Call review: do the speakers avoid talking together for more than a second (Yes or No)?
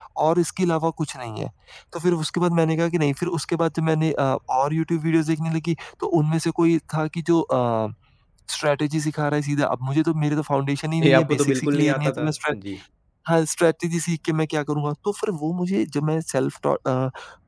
No